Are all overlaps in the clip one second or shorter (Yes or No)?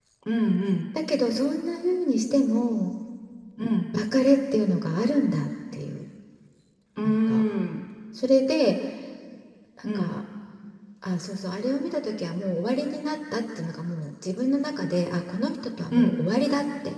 Yes